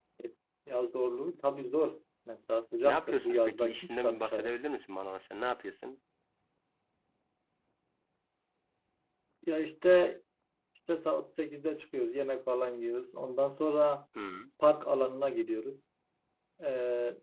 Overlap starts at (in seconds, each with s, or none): 2.8 s